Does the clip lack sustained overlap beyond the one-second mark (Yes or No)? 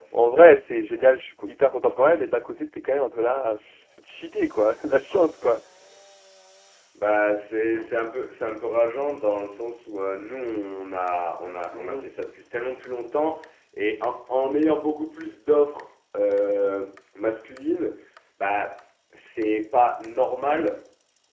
Yes